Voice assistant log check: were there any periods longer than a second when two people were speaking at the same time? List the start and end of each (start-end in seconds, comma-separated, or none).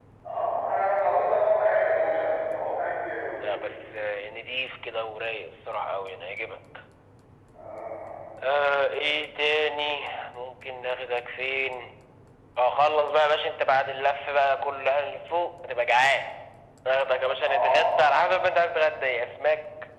none